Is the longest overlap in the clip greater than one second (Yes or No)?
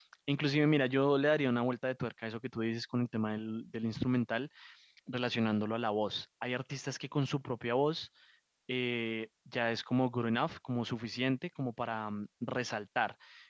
No